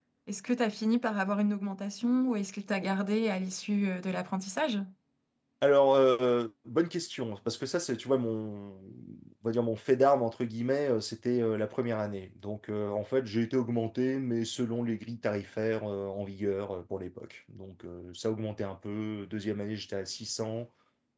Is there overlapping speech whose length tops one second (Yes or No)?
No